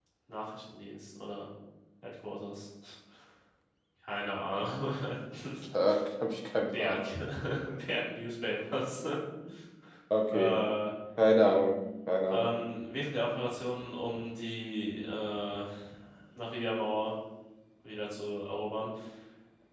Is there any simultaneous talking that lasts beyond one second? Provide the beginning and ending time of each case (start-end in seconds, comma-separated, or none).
none